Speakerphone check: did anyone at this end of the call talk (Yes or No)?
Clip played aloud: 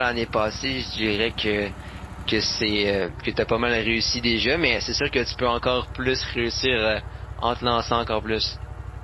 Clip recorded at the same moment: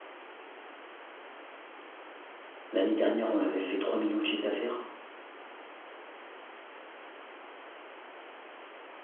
Yes